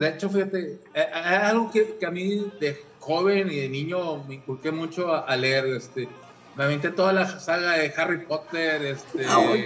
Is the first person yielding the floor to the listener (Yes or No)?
No